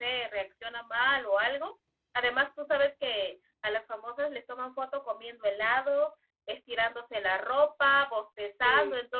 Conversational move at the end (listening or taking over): listening